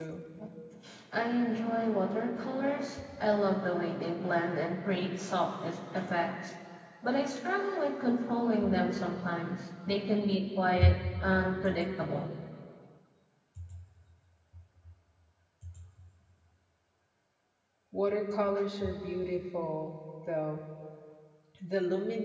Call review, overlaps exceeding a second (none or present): none